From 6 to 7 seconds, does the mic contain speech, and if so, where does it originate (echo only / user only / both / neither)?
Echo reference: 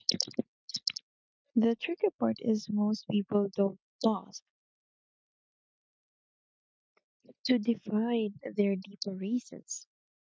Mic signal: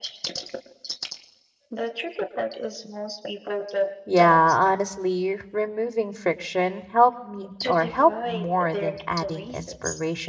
user only